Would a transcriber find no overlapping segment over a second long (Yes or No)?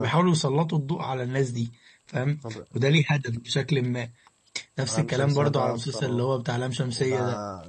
No